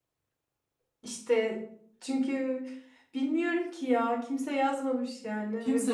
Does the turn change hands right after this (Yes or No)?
Yes